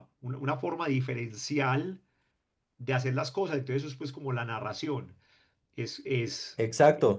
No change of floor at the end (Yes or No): No